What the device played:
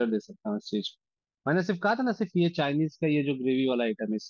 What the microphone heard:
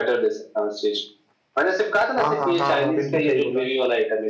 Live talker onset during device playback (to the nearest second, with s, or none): 2 s